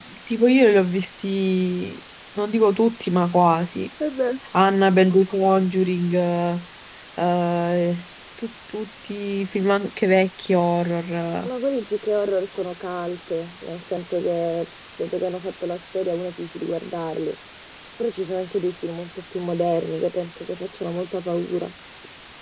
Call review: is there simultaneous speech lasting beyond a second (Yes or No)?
No